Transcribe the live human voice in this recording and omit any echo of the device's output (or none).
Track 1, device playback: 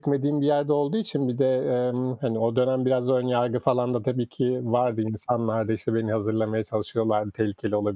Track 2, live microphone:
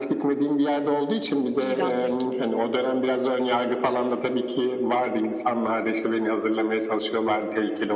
İran'la ilgili?